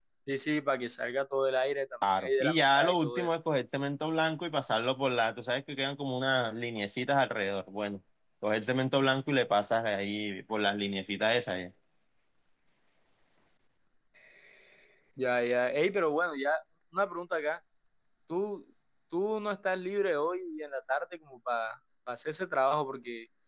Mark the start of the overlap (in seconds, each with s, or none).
2.0 s